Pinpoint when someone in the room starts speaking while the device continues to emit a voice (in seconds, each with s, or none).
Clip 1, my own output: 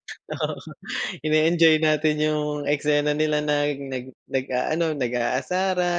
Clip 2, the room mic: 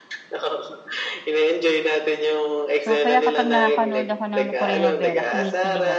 2.8 s